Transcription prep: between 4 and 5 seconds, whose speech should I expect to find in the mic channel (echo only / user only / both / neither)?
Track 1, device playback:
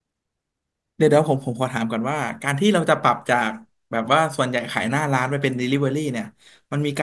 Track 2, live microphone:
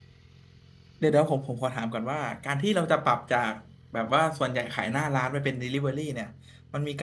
echo only